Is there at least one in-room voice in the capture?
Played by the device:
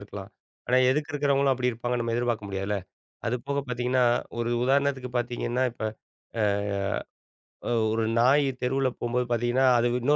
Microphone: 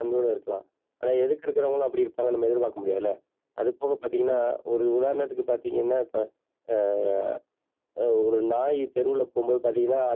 No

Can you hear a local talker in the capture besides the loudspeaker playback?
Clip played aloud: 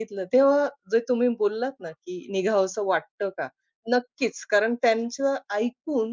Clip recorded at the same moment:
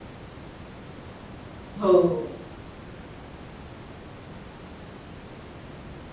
Yes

